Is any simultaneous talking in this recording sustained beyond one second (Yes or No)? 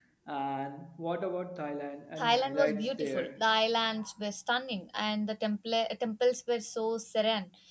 Yes